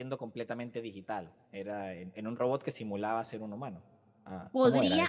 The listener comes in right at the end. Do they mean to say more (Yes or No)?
Yes